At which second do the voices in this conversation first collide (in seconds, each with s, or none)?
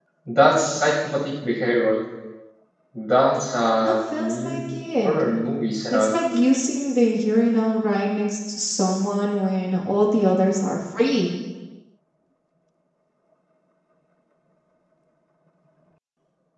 3.8 s